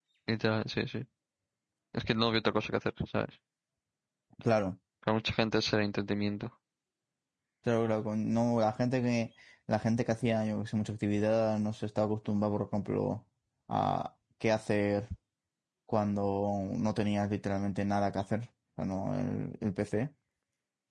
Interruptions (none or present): none